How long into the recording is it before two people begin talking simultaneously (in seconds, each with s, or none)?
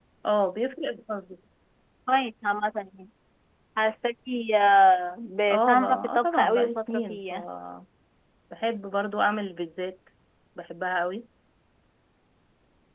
5.5 s